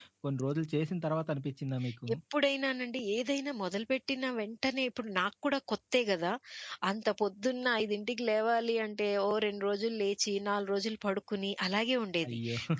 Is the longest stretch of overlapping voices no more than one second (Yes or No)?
Yes